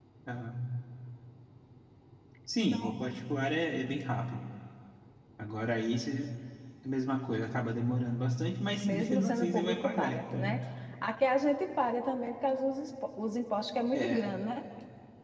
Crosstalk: present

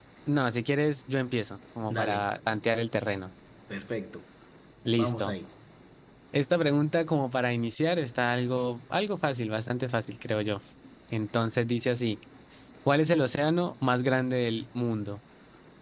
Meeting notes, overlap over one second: none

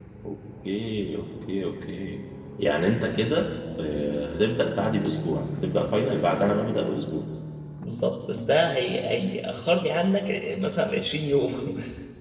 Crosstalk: none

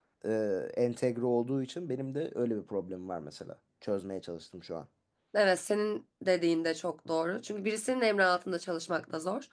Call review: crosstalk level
none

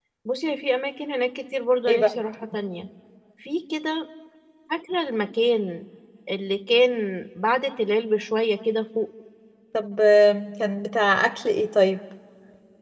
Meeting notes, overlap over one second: none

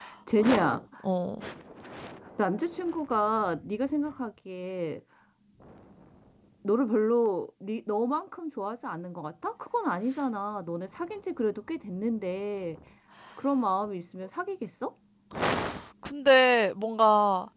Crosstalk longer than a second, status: none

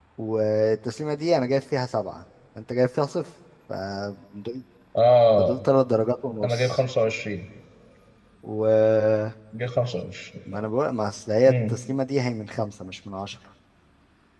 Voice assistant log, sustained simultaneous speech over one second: none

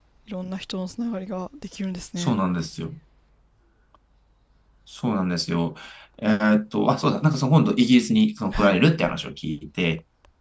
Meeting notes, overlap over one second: none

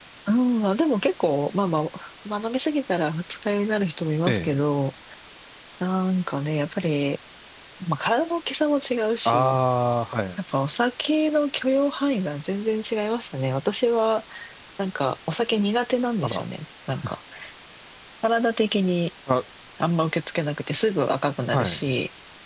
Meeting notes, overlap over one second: none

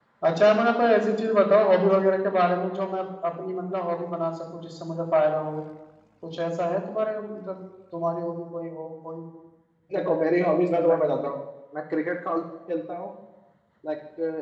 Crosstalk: present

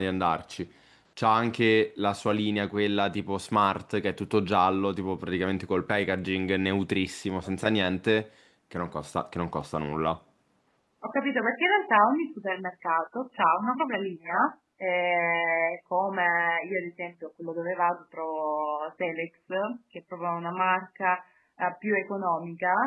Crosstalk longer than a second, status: none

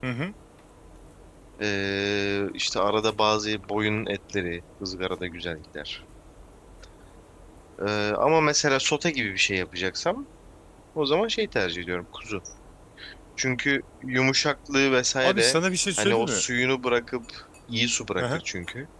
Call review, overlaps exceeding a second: none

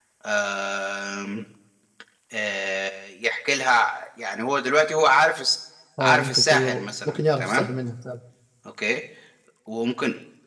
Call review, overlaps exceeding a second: present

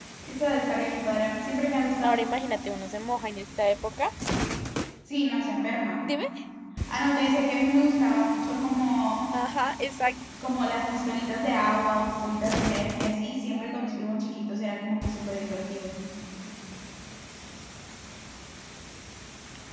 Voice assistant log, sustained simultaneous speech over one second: none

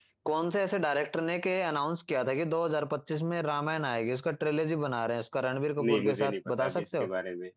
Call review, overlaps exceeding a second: present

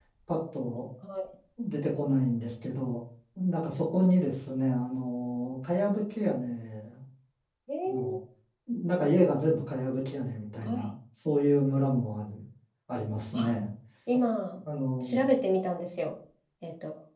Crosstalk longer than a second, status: none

